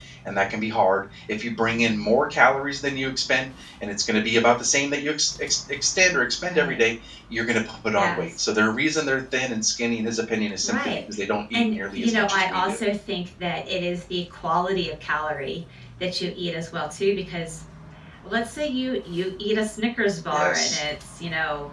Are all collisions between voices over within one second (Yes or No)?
No